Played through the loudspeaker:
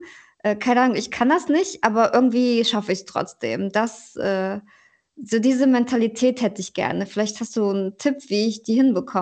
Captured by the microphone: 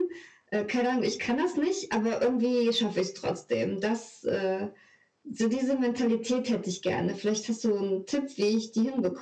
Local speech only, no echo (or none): none